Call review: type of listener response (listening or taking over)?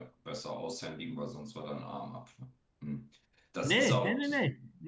taking over